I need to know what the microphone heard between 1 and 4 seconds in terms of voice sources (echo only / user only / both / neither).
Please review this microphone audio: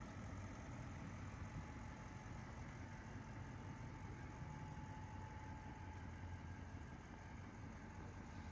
neither